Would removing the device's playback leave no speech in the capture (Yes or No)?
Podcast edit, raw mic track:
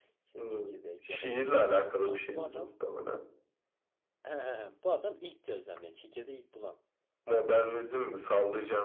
No